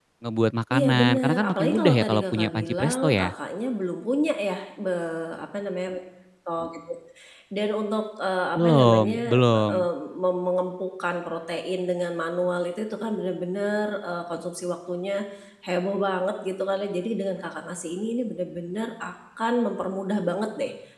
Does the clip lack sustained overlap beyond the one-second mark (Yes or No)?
No